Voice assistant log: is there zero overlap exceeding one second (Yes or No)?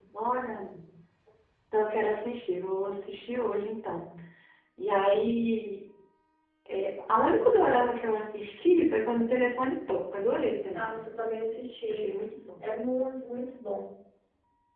Yes